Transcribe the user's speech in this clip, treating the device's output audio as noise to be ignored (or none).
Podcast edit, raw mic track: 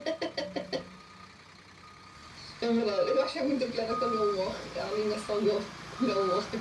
none